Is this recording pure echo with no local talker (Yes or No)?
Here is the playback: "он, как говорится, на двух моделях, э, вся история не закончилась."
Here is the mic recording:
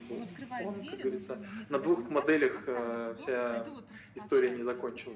No